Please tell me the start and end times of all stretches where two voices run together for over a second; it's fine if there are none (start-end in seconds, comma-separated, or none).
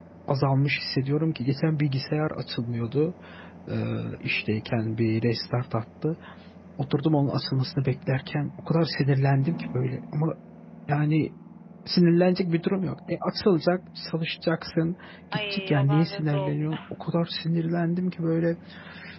15.3-16.6